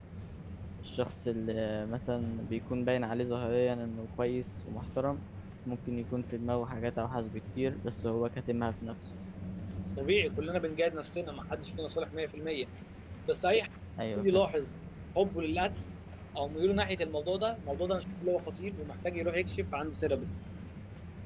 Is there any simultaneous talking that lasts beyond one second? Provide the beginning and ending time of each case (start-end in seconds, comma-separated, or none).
none